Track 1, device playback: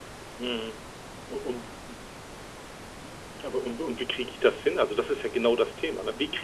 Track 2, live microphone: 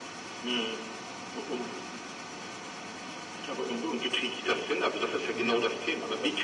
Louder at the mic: echo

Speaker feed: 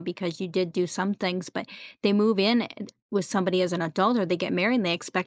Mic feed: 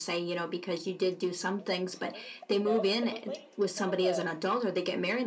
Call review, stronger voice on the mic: echo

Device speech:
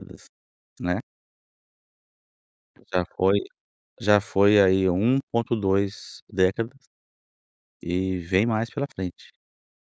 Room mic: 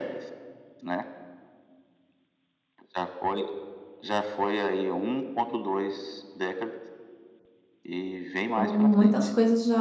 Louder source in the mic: user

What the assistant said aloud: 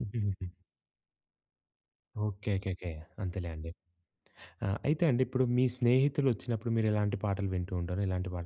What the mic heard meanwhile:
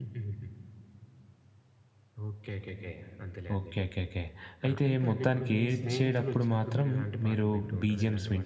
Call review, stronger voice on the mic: user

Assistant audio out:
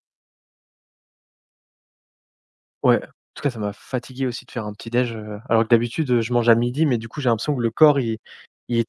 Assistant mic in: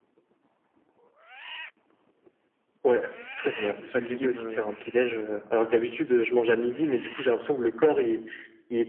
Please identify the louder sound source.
echo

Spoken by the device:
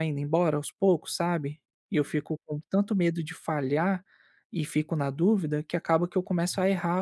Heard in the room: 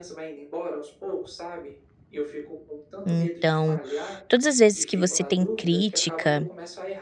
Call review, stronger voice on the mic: user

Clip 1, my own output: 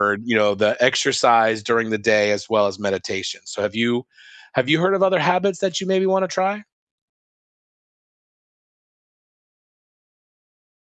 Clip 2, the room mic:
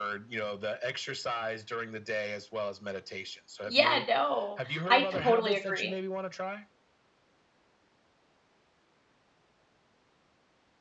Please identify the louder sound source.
user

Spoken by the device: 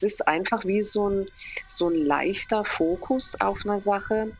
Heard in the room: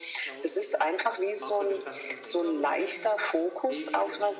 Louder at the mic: echo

